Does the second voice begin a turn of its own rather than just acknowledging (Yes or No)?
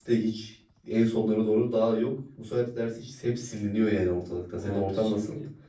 Yes